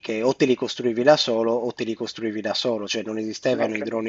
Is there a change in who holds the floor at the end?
No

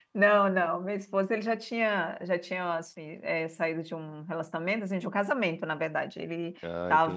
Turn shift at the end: No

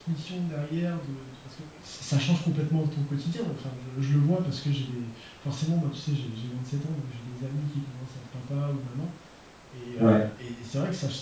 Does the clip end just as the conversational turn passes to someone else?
No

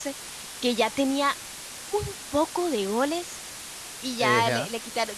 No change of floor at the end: Yes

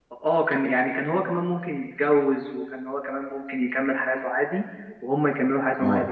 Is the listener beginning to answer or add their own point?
No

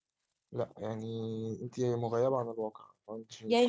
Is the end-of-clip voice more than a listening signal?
Yes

